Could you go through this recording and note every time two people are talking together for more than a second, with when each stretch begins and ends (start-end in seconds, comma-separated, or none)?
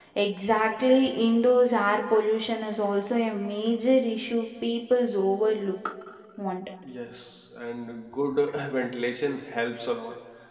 none